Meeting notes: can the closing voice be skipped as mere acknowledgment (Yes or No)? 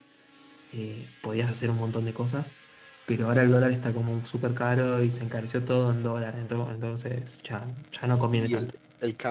No